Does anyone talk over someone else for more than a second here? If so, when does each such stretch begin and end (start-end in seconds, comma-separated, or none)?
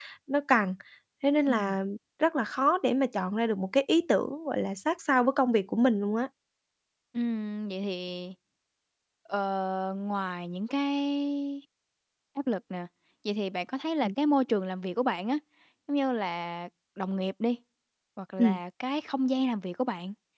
none